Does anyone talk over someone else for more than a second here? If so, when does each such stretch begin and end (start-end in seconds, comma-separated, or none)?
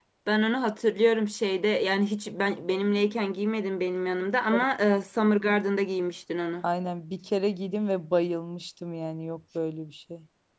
none